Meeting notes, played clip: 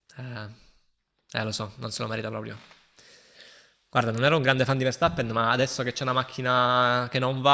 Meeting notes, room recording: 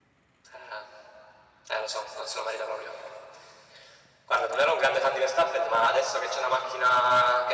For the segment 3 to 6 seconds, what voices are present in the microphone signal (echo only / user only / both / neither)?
echo only